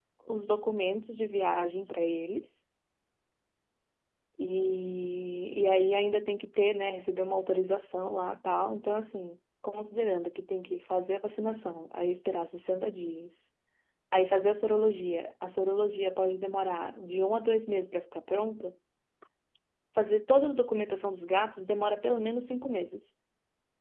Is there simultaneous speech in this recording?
No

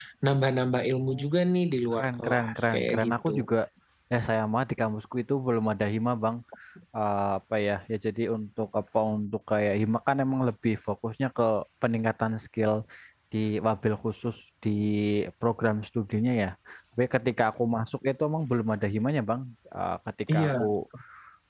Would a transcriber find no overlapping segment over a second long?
No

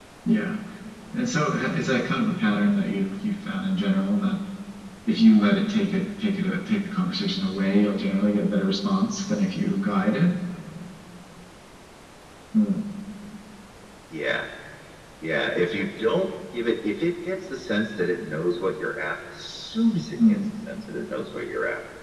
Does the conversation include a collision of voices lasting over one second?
No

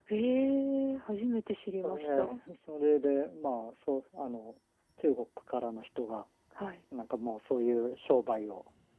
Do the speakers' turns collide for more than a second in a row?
No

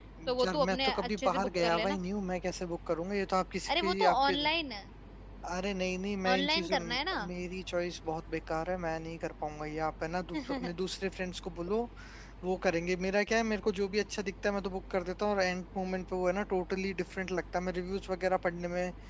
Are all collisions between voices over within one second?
No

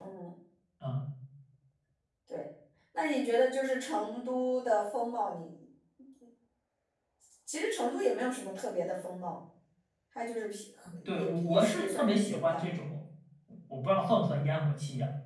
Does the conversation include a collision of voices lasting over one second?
Yes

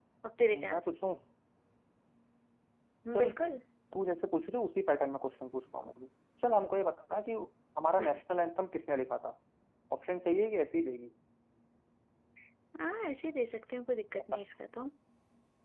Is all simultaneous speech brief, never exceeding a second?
Yes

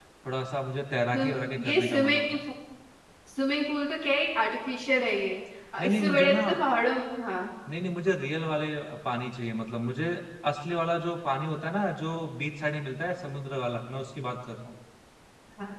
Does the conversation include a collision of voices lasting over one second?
Yes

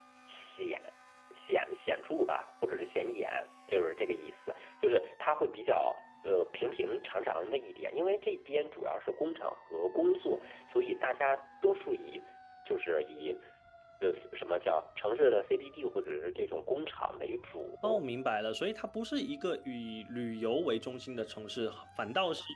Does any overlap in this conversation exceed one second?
No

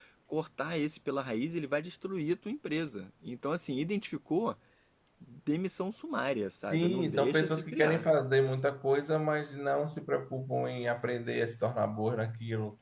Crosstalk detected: Yes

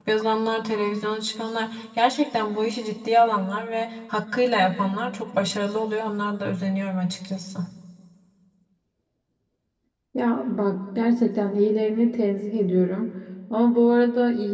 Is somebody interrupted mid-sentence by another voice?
No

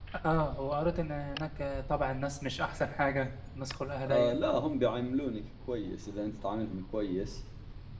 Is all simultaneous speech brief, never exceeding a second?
Yes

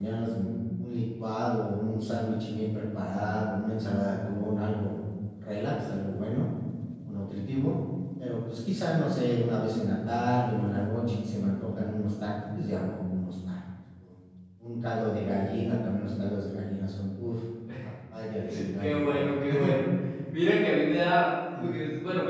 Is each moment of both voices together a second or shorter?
Yes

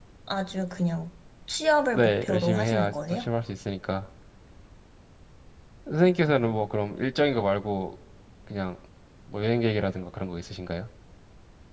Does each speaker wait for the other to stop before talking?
No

